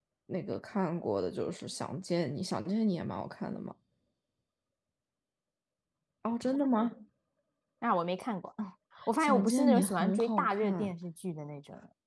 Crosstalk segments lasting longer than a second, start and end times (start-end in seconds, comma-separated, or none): 9.2-10.9